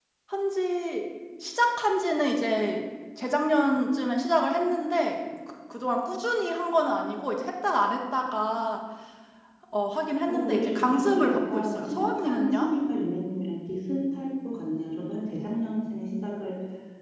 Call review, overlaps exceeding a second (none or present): present